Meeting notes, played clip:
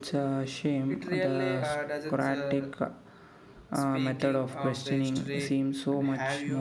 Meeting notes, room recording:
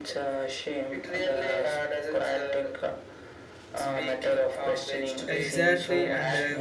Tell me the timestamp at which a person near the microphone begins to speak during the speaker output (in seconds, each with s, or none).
5.3 s